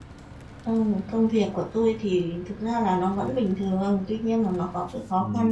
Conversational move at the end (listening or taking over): listening